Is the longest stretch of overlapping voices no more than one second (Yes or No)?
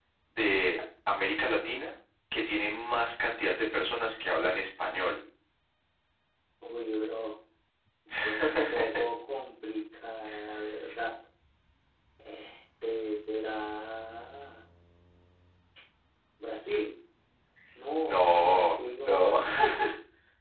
No